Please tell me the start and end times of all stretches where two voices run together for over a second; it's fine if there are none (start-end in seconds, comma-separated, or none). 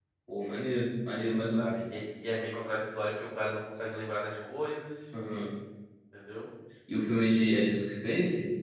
none